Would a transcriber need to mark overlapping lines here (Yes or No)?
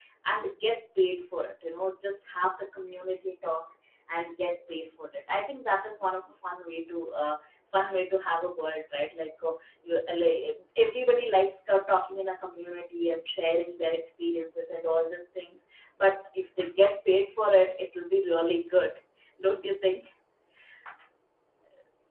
No